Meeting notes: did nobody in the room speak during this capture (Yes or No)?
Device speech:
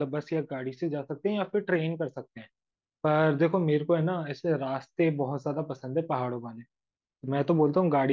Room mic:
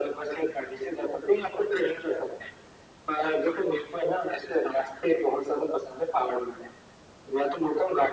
Yes